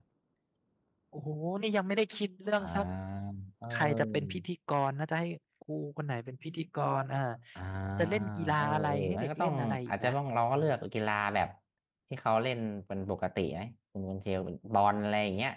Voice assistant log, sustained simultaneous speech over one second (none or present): present